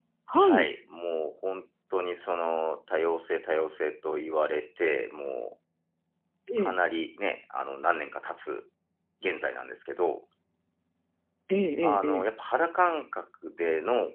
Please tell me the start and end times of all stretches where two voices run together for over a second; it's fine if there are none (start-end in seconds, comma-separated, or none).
none